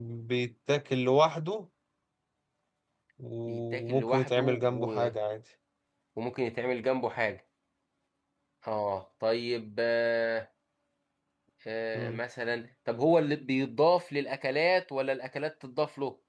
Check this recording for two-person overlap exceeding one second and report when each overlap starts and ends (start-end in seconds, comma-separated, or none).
3.5-5.1